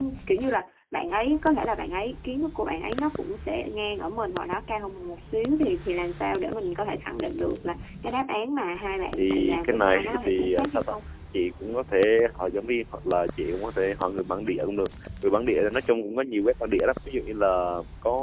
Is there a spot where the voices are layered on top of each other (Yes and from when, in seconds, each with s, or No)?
Yes, from 9.2 s